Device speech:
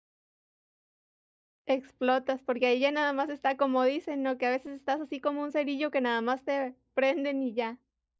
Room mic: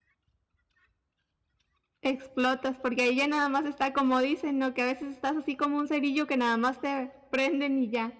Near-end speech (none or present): none